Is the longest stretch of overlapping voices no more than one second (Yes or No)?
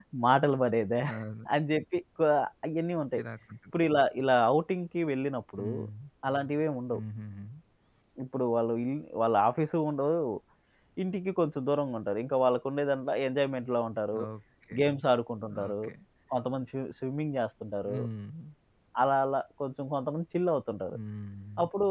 Yes